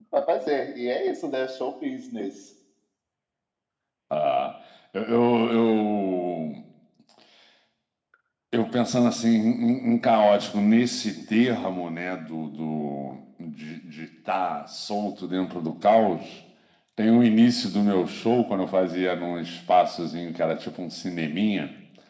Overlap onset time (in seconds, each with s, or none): none